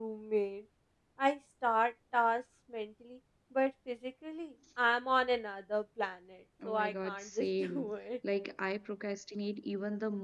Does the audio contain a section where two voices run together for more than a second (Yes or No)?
Yes